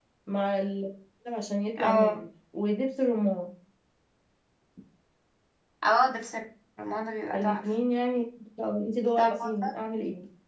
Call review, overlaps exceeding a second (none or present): none